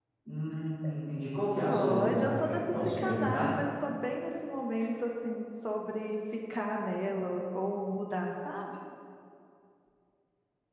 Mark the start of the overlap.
1.7 s

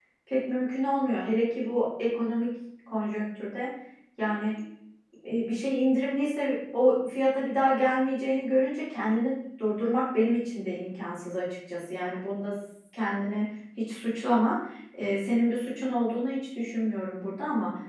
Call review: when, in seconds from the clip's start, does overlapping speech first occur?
none

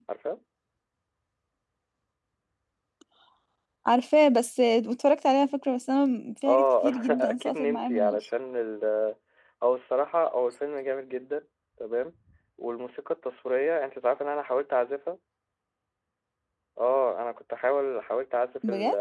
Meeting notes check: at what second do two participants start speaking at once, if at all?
6.5 s

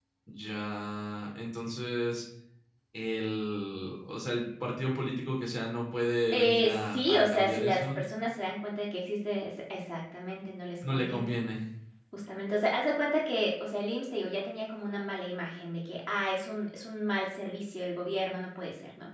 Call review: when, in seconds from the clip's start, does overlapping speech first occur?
6.3 s

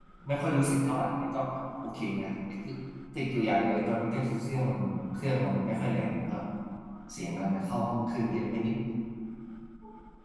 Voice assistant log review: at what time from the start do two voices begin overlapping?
none

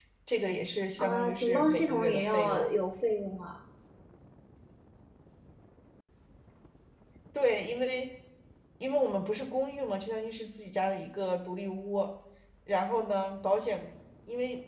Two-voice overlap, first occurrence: 1.0 s

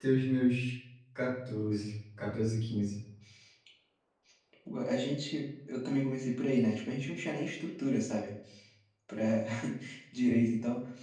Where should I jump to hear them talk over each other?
none

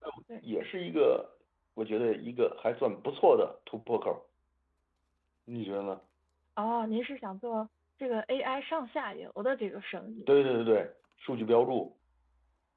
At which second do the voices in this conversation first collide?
none

